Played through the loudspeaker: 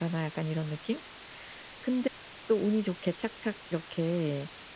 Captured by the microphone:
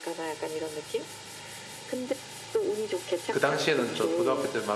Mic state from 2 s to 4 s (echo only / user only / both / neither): both